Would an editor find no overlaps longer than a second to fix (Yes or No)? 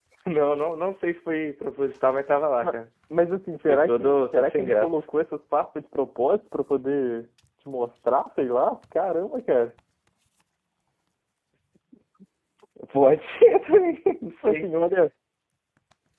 No